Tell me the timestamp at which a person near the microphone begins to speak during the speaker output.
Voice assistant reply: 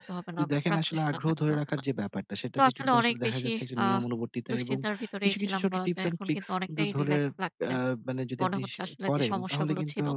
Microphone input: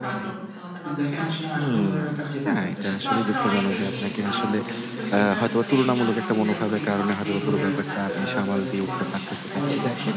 1.5 s

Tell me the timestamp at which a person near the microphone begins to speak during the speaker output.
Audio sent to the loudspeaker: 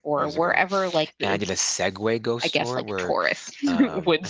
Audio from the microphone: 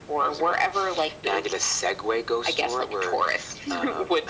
none

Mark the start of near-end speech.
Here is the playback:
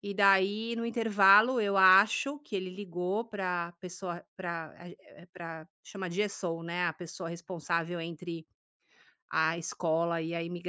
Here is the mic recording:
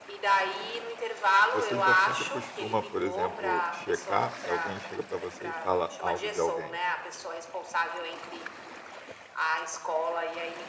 1.5 s

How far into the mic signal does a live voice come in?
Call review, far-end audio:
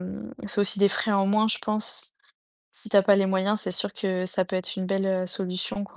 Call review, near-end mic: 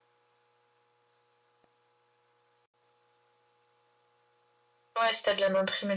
5.0 s

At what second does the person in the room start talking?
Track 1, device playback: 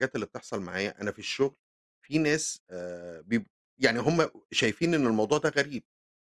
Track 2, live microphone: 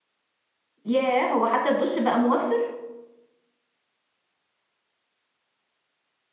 0.8 s

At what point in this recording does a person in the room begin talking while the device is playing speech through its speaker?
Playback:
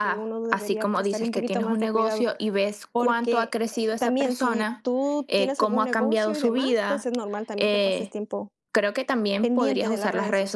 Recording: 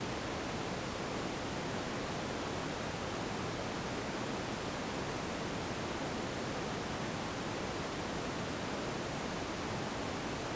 none

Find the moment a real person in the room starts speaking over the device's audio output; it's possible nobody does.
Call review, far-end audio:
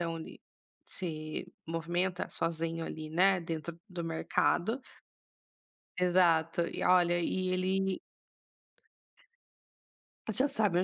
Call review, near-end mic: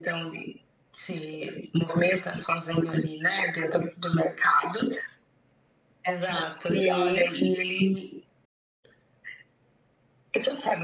6.7 s

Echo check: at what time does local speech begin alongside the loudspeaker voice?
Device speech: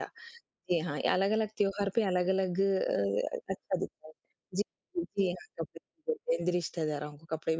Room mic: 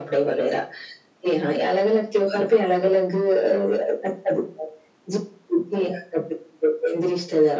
none

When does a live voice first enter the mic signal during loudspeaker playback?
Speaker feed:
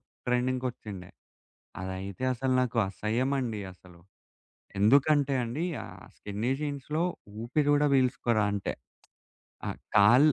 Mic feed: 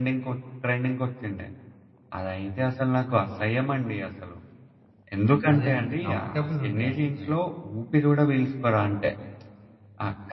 5.5 s

